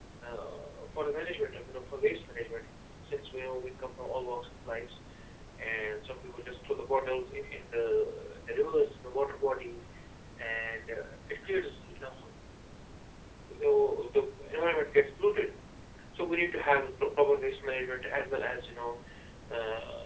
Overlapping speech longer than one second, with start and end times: none

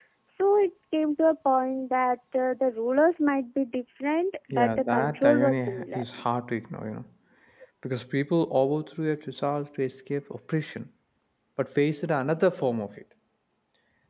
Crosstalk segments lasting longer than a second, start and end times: 4.5-6.0

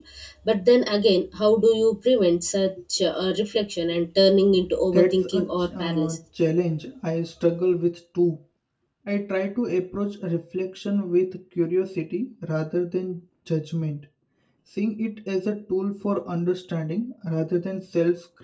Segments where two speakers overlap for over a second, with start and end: 4.9-6.2

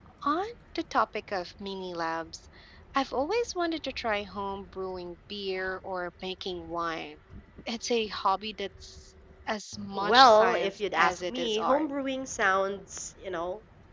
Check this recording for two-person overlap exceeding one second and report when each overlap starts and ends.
9.9-11.9

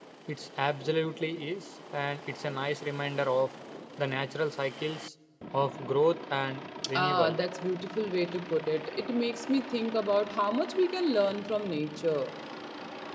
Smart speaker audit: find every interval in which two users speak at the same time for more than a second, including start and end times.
none

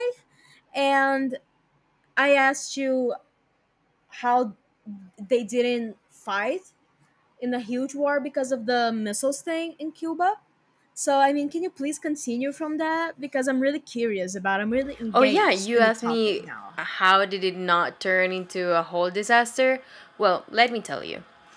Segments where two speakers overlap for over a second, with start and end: 15.1-16.4

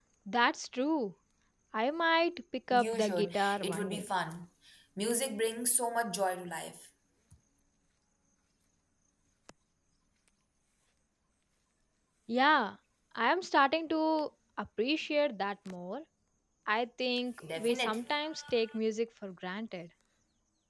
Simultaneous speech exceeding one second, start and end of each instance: 2.7-4.0

